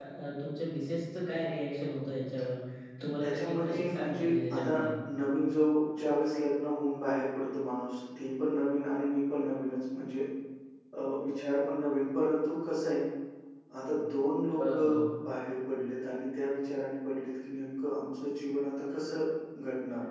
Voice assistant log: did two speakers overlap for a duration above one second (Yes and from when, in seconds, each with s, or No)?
Yes, from 3.2 s